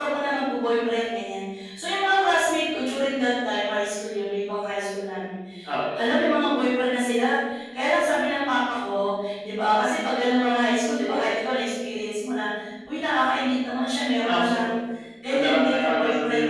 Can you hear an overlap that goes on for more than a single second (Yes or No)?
Yes